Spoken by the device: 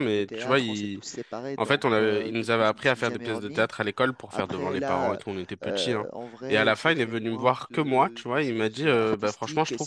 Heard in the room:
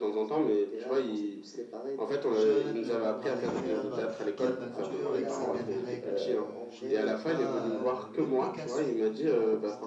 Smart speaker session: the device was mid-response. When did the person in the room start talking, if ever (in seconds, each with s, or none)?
2.2 s